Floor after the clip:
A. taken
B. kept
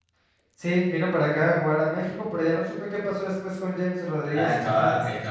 A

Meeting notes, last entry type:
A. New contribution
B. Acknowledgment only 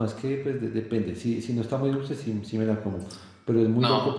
B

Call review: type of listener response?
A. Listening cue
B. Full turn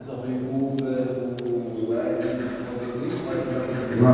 B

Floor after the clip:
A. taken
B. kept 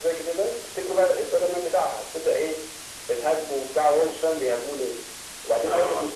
B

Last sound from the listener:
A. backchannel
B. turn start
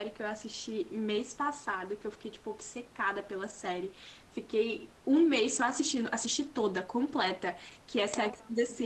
A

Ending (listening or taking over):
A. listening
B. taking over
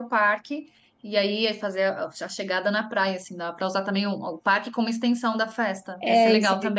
B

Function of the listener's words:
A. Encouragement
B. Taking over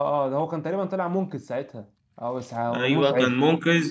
B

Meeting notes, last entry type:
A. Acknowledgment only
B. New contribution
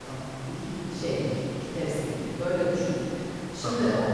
A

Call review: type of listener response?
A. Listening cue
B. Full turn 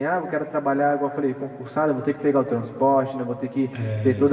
A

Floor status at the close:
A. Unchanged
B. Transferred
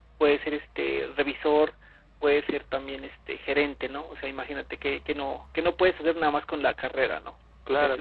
B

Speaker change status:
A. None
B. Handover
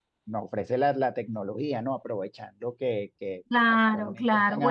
B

